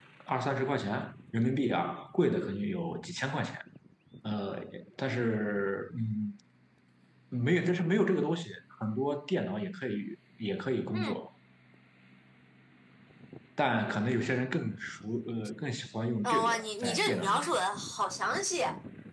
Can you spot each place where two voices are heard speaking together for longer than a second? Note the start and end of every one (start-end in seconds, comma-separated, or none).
16.2-17.5